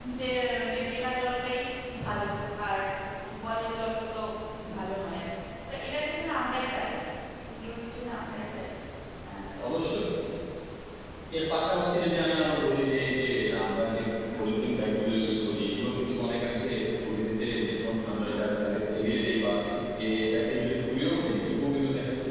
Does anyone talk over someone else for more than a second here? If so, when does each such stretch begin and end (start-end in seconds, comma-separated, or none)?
none